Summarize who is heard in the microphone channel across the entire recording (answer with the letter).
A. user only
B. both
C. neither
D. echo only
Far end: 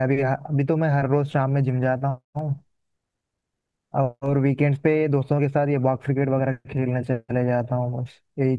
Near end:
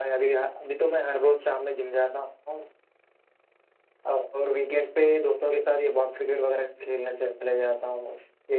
D